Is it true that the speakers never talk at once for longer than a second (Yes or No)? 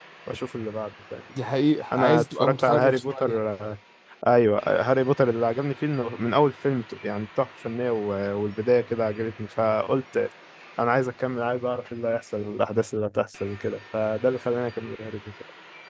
No